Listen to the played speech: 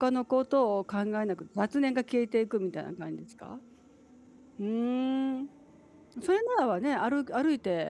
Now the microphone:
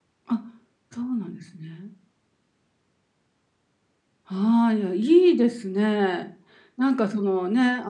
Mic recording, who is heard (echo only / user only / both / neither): user only